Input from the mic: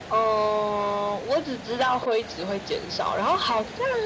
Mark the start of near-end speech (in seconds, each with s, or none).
none